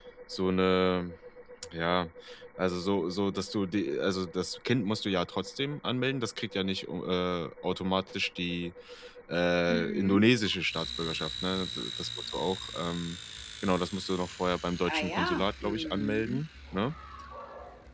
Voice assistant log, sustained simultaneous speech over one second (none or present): present